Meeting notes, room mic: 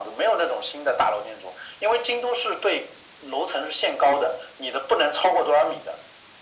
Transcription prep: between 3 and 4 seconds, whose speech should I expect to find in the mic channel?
echo only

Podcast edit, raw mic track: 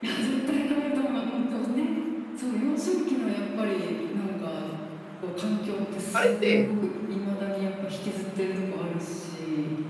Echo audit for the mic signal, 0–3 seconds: echo only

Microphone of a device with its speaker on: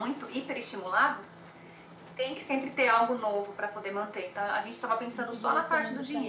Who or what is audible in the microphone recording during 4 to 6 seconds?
both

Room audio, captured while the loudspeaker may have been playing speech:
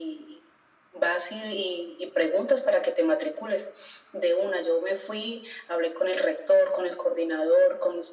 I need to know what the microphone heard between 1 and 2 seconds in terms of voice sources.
echo only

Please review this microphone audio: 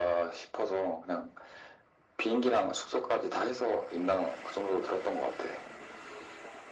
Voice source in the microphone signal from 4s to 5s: echo only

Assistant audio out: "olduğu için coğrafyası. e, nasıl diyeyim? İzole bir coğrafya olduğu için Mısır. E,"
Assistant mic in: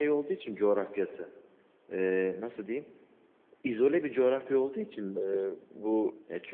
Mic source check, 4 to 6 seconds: both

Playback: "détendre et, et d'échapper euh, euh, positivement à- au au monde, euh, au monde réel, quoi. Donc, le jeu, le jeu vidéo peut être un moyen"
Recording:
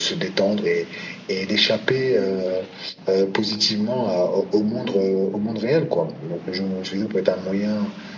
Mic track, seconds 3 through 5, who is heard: echo only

